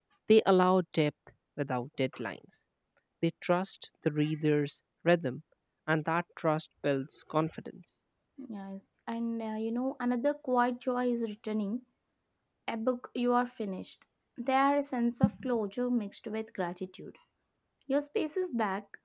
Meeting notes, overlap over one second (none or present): none